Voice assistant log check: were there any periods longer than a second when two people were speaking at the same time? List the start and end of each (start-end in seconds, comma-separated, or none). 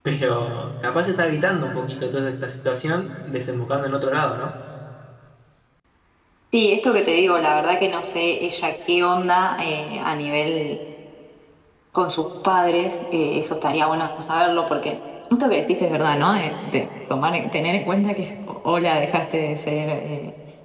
none